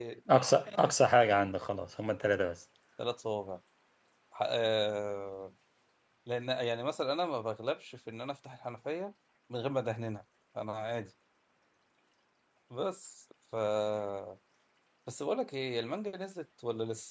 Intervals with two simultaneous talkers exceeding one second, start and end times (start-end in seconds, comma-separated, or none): none